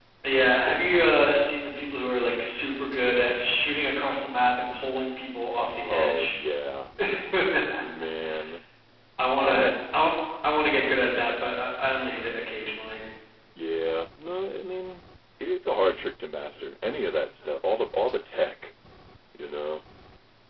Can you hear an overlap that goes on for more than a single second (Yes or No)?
No